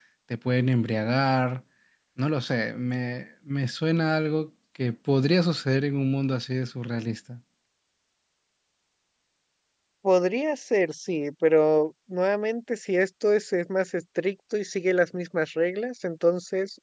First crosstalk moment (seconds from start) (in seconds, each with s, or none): none